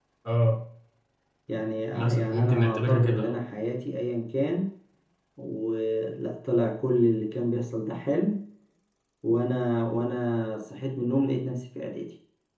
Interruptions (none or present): present